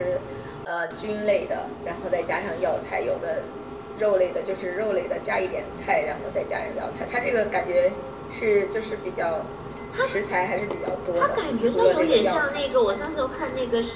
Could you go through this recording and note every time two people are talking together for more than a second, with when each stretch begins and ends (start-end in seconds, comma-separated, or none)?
11.2-13.0